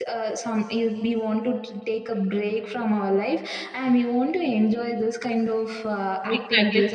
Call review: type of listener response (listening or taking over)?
taking over